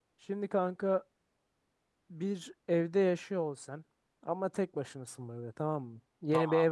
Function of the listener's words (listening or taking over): listening